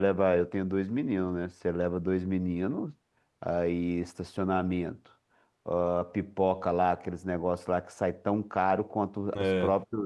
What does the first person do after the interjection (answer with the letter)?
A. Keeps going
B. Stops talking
A